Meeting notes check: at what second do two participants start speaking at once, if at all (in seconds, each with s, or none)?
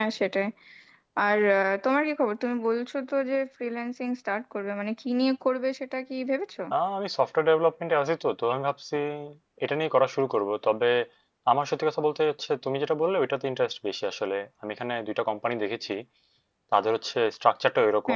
none